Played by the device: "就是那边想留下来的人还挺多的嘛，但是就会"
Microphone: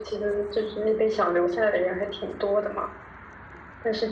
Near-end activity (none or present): none